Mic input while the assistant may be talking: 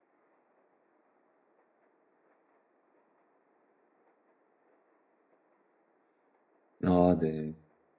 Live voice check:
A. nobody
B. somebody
B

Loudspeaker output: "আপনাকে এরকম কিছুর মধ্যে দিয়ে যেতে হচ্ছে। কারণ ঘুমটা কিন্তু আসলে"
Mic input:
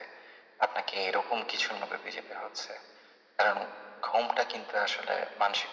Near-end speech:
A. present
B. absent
B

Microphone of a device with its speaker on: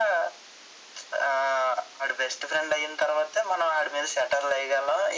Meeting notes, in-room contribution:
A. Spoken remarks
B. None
B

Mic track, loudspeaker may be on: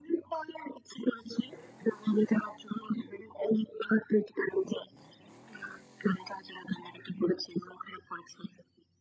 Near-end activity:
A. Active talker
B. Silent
B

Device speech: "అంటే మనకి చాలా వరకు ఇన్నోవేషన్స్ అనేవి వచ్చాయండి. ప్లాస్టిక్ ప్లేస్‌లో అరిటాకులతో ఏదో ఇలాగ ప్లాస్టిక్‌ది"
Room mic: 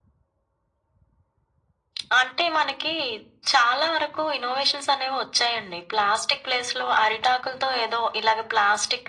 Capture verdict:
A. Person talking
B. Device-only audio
B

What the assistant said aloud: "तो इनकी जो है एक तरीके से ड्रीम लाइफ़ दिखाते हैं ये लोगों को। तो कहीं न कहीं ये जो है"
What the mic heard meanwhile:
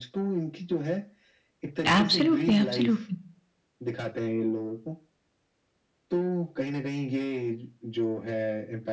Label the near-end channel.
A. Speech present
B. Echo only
A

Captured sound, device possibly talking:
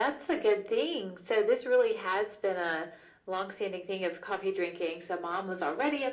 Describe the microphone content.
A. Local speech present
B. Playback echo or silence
B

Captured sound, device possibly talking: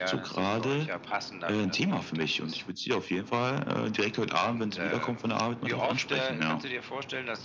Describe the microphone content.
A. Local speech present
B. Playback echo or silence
B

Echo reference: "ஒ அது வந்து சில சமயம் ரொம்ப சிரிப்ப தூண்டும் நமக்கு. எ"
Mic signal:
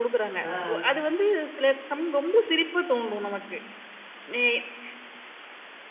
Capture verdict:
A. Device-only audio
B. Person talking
B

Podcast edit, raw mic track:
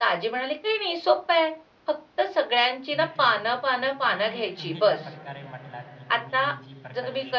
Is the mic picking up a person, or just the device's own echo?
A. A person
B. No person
A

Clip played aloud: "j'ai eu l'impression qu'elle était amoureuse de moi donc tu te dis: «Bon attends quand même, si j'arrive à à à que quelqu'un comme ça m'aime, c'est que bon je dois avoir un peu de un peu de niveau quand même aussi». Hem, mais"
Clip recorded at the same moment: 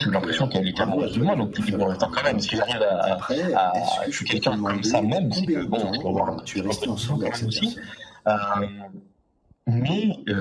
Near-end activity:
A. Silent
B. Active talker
B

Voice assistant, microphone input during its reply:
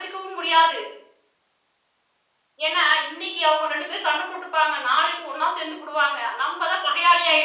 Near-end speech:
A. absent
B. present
A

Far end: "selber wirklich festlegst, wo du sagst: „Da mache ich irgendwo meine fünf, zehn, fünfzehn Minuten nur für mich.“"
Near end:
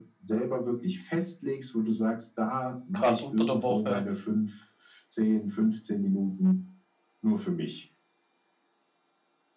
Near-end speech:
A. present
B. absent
A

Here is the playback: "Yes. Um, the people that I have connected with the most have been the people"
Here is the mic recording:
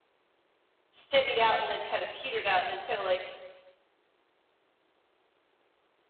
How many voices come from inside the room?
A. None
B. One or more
B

